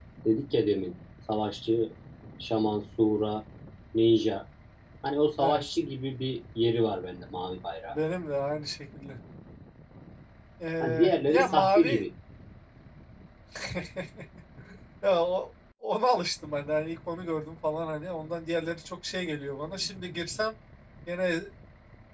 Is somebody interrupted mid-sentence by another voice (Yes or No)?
Yes